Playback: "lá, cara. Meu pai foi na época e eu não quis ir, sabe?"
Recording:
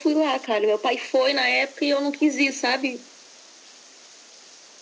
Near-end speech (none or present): none